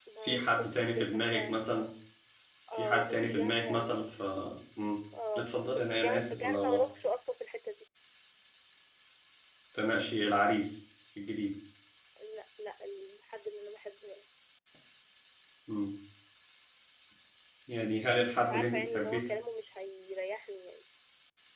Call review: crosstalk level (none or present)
present